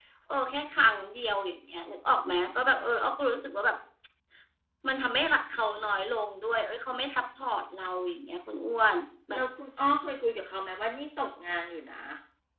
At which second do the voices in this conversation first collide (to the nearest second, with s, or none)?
none